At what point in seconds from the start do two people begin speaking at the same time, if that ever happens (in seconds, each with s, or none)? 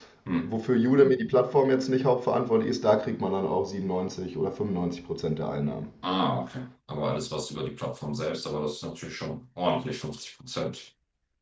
none